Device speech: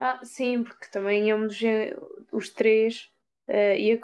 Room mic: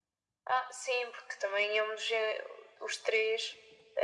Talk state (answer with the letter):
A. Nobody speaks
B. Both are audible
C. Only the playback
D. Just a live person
C